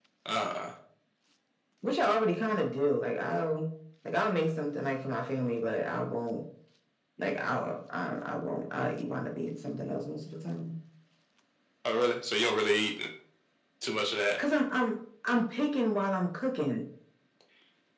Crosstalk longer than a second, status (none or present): none